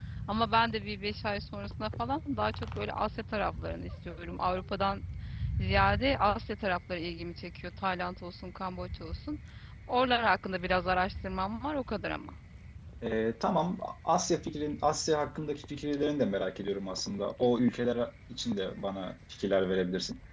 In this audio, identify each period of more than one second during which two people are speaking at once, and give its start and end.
none

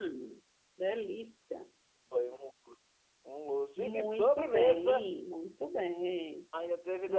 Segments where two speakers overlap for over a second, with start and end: 3.8-5.1

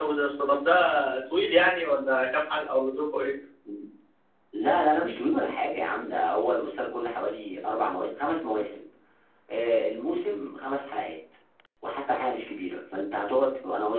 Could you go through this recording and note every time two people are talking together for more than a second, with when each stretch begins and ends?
none

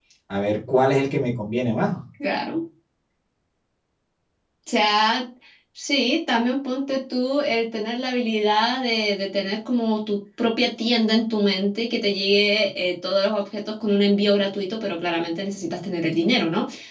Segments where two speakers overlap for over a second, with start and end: none

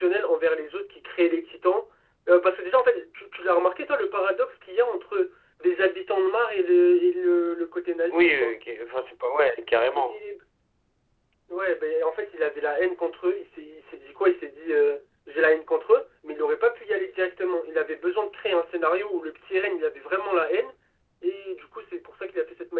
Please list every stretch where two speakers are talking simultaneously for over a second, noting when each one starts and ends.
none

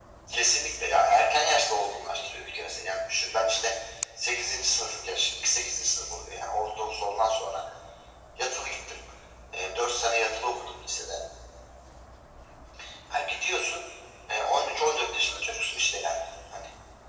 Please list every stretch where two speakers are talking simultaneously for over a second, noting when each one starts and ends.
none

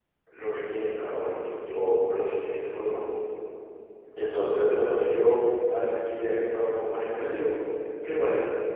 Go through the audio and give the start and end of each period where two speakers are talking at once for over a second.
none

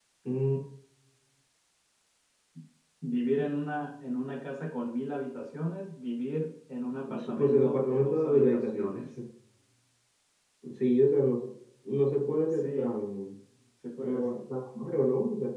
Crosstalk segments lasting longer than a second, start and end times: 7.2-9.0

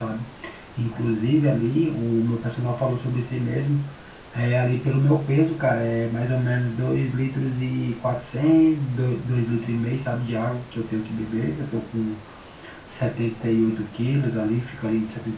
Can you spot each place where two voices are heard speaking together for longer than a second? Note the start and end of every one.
none

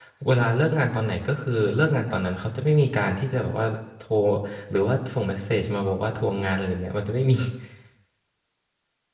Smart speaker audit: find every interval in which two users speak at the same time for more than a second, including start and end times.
none

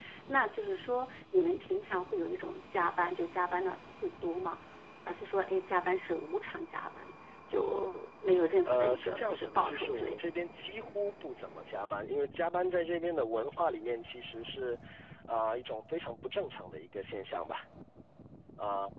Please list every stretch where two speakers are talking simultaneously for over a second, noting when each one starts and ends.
8.7-10.2

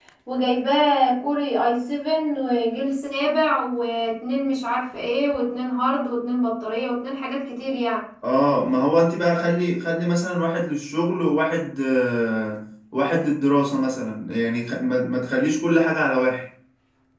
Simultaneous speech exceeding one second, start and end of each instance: none

